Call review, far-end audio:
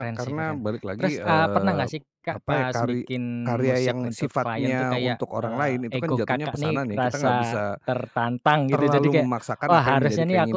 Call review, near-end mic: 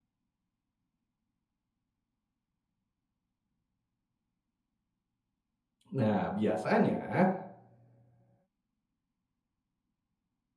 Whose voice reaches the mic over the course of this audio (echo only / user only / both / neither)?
user only